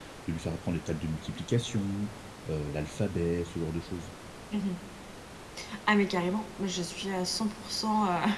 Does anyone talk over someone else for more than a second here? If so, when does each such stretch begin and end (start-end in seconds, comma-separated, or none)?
none